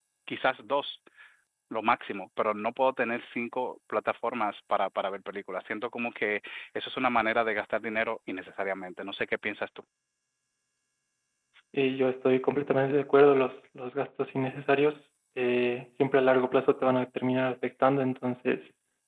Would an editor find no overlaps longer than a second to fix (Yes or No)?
Yes